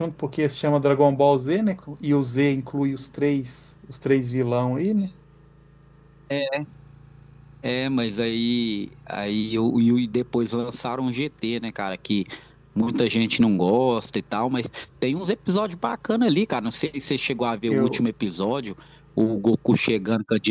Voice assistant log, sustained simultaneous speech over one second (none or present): none